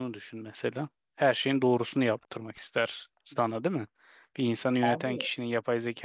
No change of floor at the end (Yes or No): Yes